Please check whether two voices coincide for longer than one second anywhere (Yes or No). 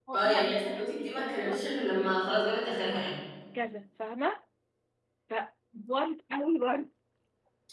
Yes